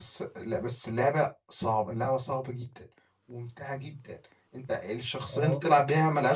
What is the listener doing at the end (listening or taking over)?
listening